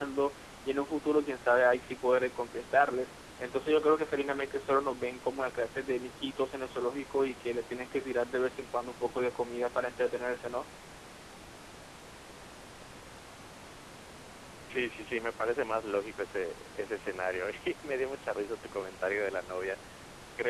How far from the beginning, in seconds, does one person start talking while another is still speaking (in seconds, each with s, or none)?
none